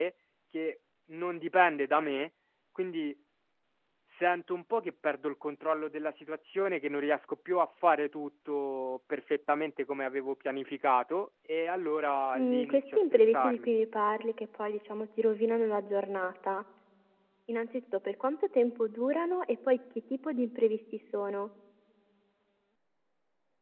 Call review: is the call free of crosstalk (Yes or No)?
No